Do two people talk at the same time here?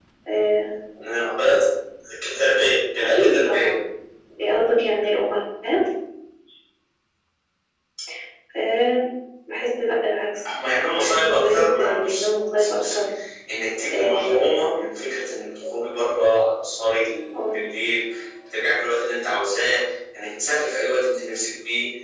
Yes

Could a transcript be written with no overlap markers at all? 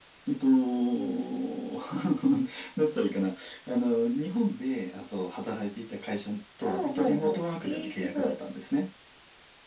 No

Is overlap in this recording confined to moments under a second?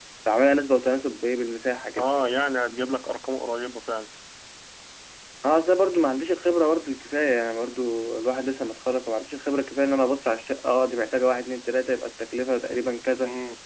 Yes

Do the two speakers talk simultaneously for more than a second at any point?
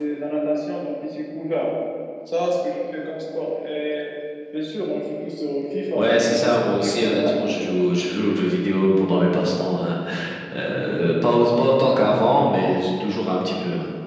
Yes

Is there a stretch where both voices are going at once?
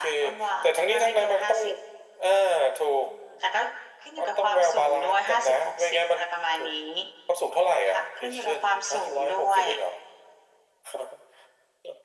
Yes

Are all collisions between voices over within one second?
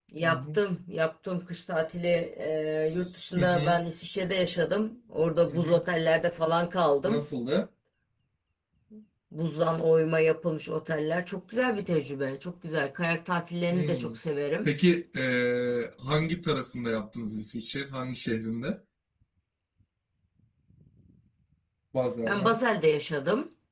Yes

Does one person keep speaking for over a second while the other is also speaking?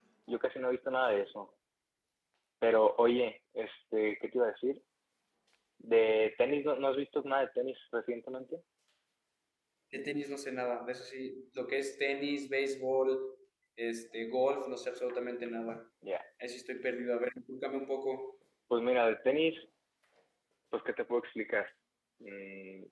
No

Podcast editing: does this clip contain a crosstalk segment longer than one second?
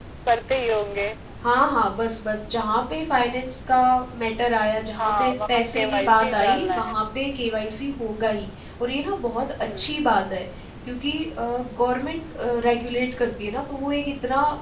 Yes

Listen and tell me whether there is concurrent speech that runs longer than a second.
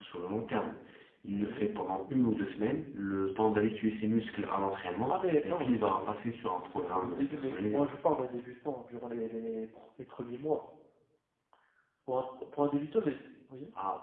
Yes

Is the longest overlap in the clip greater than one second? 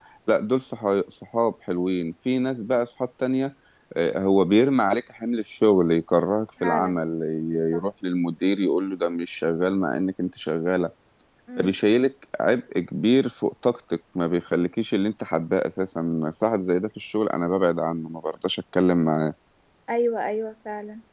No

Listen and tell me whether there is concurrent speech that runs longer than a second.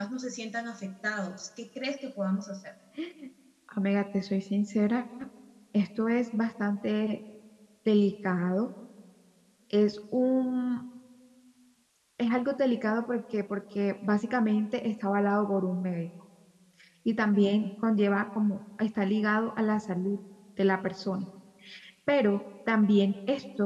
No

